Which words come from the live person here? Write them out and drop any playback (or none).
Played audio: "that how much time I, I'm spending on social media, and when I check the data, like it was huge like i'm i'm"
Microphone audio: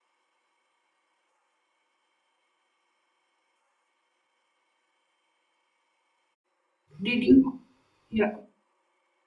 Did you? Yeah.